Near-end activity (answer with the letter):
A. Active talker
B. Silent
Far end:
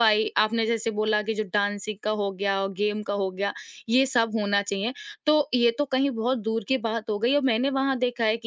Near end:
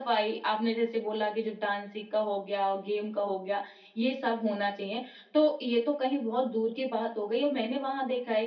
B